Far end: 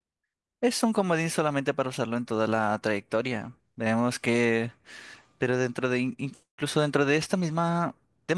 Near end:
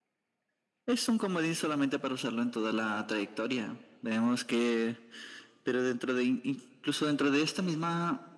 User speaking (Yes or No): No